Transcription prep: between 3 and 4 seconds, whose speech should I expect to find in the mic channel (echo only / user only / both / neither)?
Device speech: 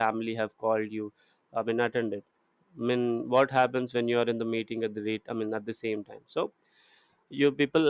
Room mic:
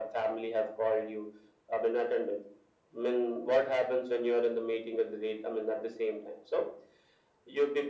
echo only